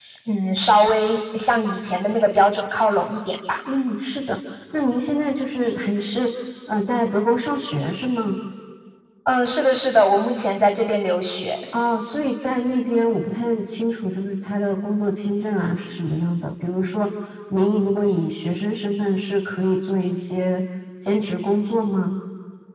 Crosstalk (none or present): none